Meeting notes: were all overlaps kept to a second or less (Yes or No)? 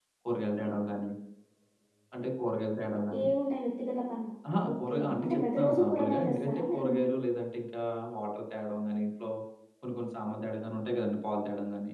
No